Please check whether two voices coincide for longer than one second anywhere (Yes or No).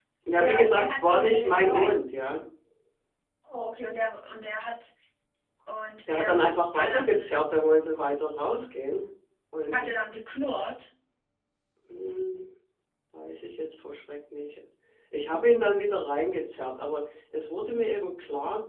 Yes